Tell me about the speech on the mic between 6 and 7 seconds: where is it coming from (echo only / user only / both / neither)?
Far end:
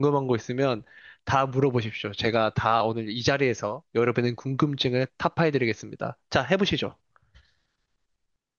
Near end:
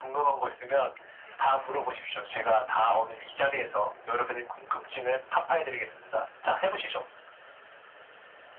echo only